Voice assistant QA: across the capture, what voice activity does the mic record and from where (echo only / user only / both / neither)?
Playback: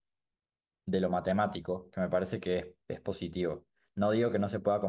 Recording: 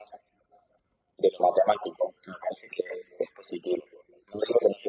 echo only